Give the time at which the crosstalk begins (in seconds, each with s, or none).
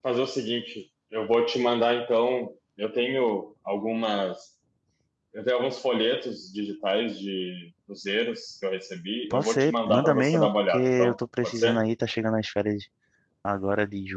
9.3 s